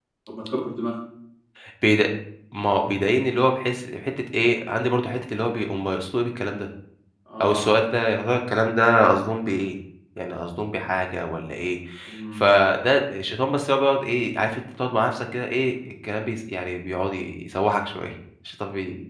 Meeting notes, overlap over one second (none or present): none